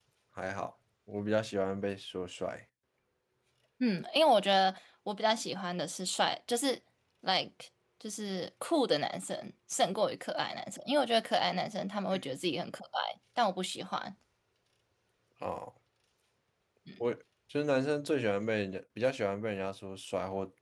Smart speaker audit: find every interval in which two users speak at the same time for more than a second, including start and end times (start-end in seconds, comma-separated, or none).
none